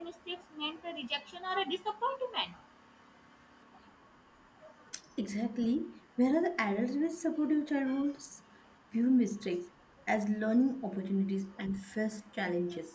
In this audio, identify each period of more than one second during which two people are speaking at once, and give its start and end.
none

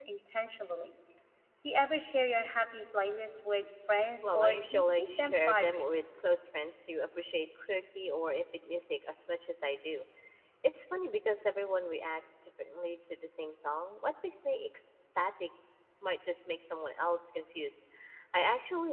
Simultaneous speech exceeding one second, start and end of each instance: 4.2-5.9

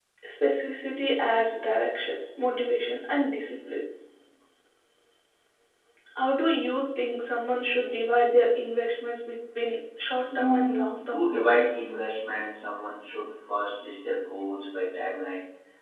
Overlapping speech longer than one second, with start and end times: 10.3-11.7

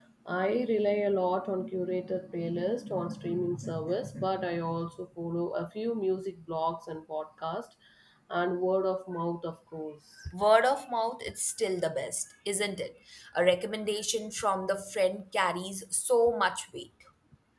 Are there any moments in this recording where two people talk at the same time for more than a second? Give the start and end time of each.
none

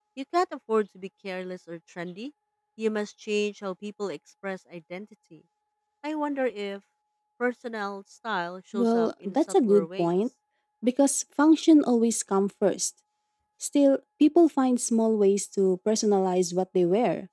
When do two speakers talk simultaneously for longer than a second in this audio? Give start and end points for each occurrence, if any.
8.7-10.1

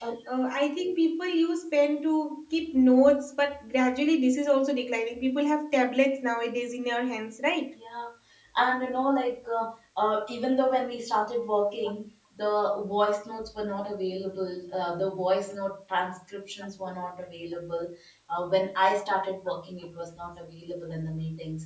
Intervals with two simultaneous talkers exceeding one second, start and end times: none

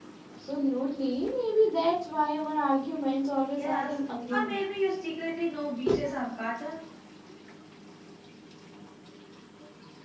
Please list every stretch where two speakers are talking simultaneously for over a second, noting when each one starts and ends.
none

